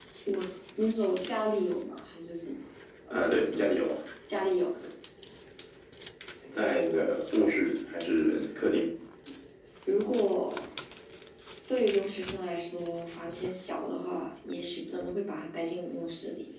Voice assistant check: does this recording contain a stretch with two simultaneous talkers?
No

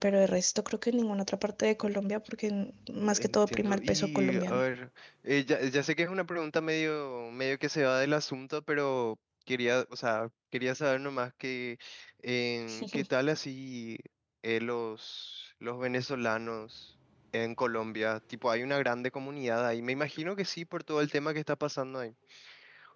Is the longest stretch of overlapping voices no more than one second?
No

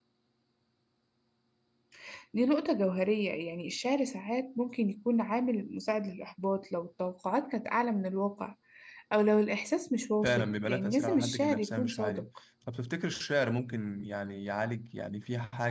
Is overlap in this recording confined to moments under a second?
No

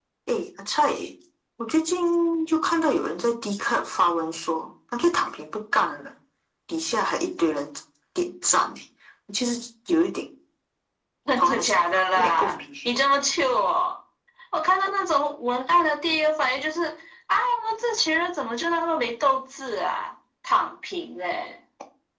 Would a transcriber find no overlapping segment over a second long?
No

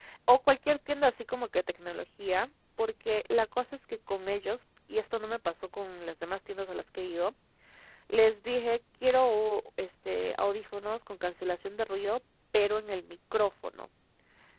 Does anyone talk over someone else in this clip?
No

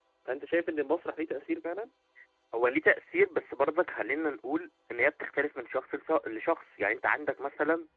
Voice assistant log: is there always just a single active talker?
Yes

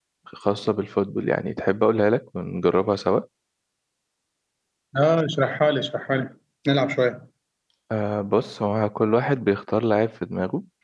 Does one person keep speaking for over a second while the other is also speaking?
No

